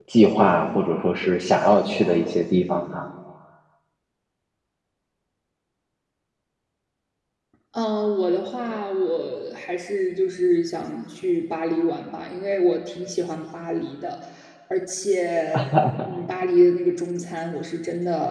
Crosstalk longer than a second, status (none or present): none